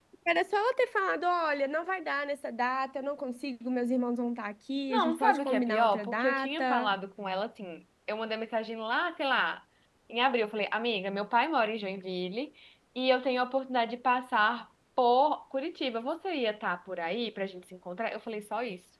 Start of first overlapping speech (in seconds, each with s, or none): 4.9 s